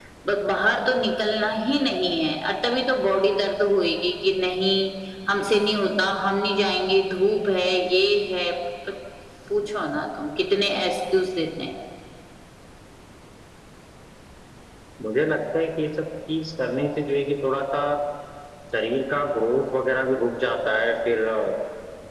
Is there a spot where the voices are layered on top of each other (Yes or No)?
No